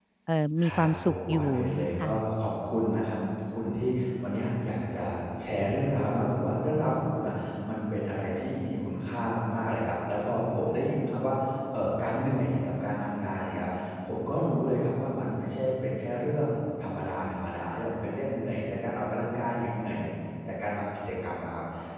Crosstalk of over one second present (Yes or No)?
Yes